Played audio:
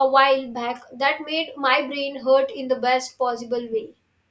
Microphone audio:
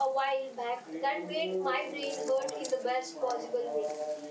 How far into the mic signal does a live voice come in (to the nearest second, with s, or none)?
1 s